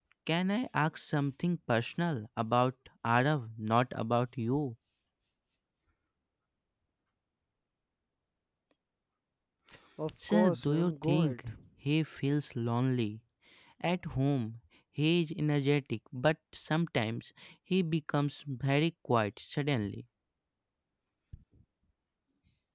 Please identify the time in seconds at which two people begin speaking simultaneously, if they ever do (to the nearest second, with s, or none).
10 s